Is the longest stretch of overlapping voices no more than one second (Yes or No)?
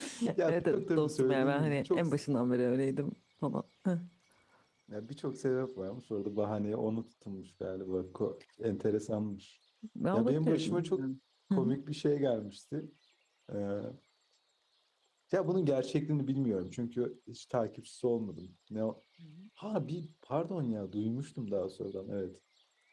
No